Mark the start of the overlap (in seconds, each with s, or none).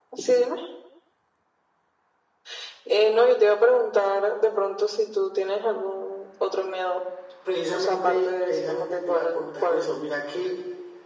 7.7 s